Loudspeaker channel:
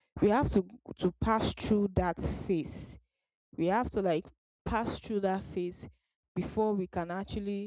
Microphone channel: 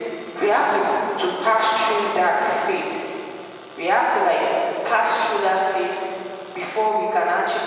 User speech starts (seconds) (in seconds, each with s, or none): none